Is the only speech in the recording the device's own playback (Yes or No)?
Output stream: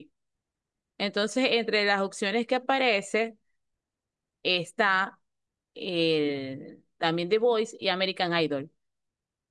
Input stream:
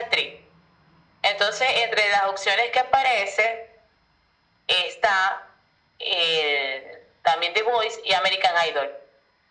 Yes